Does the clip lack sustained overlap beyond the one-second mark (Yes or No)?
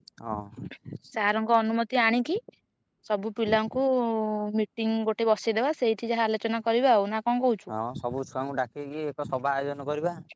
Yes